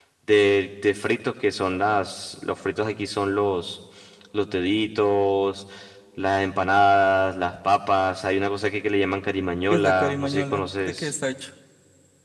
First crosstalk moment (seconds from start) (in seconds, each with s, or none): 9.7 s